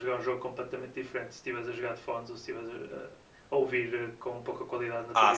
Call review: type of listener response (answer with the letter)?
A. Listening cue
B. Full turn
B